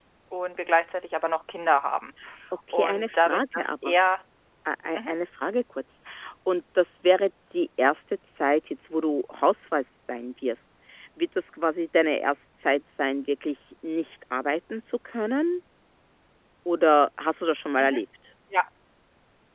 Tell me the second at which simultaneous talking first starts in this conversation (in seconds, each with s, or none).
2.7 s